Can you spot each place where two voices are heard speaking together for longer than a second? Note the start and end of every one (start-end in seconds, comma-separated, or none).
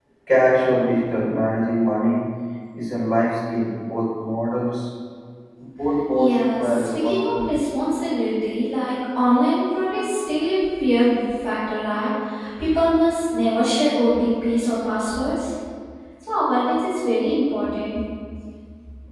6.2-7.6